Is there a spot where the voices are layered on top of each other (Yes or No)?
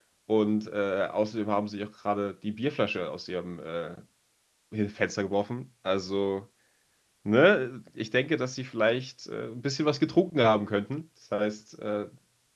No